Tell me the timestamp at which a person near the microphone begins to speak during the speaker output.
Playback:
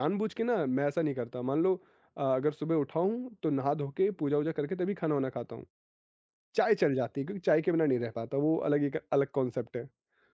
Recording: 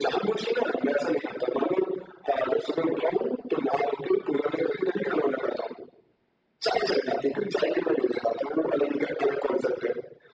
none

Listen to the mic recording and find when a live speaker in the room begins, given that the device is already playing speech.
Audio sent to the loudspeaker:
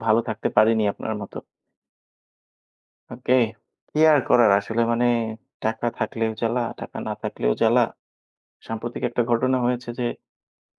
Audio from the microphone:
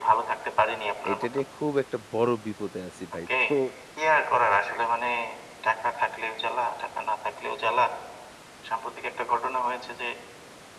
1.1 s

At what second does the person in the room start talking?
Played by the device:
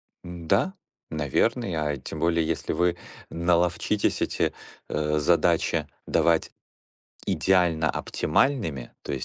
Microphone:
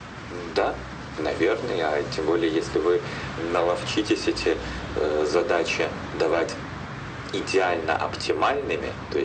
none

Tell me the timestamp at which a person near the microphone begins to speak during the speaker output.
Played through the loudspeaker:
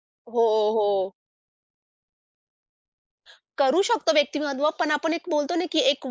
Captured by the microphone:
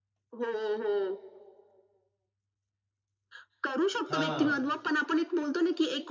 4.1 s

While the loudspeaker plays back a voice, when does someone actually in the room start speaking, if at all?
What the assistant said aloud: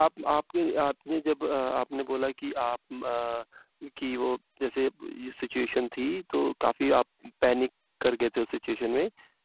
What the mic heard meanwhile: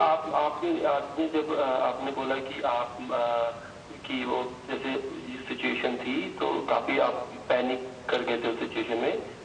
none

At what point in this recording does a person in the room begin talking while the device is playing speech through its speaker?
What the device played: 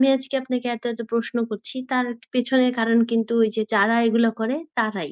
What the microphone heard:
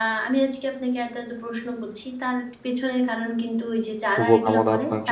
4.1 s

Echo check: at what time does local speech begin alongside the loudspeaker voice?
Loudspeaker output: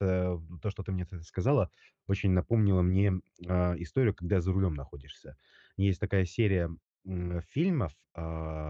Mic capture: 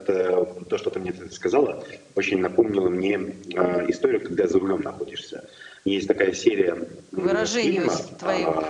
7.1 s

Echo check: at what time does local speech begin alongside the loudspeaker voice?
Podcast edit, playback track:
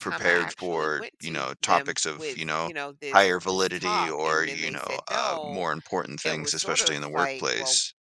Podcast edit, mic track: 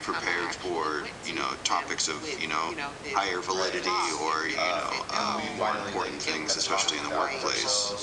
3.5 s

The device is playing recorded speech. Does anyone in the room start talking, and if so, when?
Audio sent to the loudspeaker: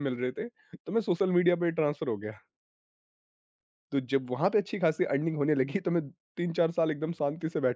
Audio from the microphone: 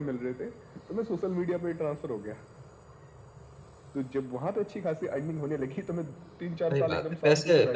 6.7 s

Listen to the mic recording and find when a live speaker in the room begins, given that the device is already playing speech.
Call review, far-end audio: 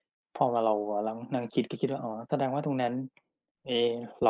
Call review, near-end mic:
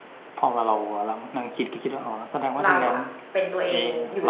2.6 s

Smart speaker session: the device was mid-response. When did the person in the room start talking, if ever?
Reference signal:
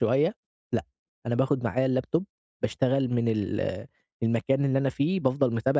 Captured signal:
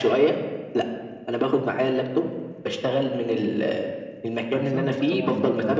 4.5 s

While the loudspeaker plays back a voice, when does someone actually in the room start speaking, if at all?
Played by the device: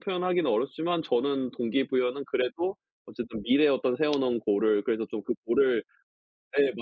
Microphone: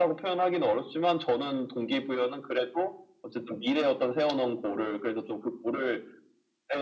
none

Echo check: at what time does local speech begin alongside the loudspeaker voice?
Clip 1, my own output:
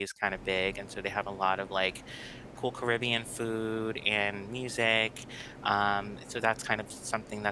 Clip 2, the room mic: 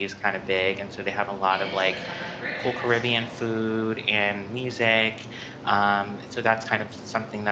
1.5 s

